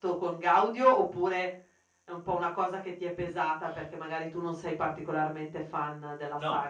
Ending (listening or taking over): taking over